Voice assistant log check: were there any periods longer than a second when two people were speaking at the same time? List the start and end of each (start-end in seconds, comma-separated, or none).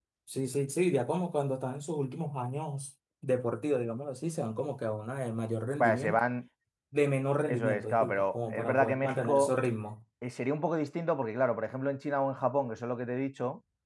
7.5-9.5